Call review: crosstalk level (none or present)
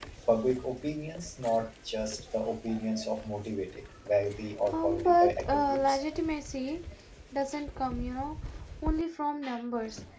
present